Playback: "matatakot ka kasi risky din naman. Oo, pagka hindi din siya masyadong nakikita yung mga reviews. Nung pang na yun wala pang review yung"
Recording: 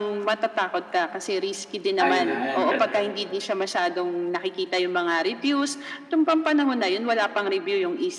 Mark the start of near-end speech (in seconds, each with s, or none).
2.0 s